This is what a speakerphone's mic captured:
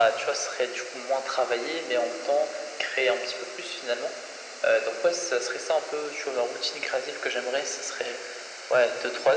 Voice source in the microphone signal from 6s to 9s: echo only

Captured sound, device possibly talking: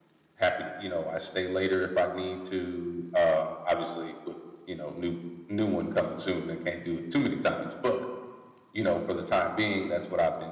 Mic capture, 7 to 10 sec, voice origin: echo only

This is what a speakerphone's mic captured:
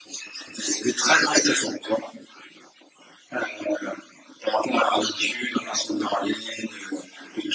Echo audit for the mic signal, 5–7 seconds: echo only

